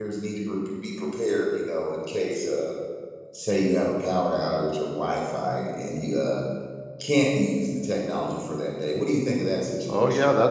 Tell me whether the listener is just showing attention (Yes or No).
No